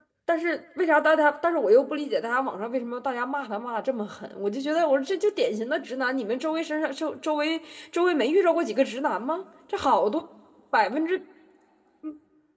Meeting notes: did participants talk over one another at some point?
No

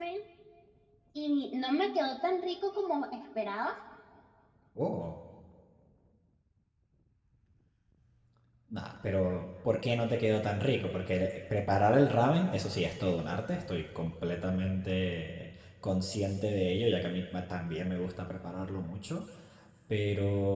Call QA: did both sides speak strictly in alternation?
Yes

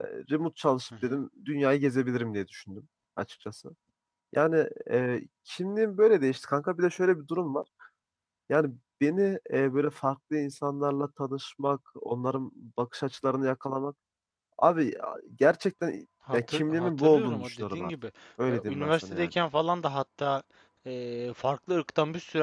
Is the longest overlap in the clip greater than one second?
Yes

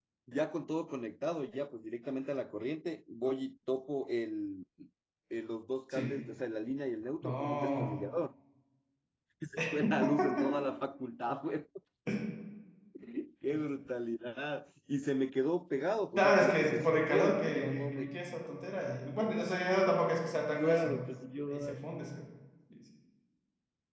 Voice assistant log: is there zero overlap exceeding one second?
No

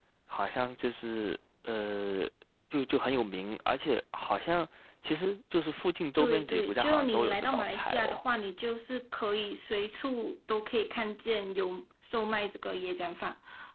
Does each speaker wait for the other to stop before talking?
No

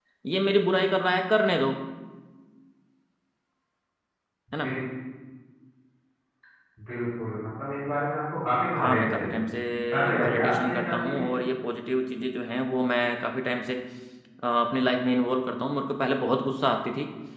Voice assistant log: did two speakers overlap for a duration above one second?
Yes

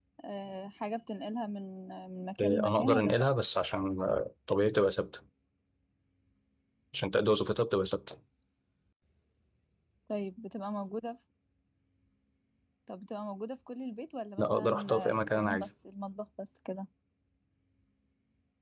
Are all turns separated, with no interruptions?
No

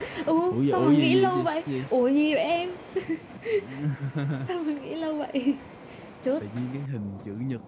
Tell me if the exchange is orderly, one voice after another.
No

